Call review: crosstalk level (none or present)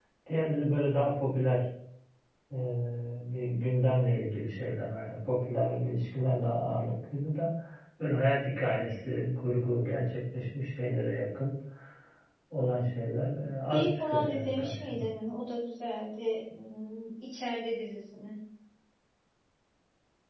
present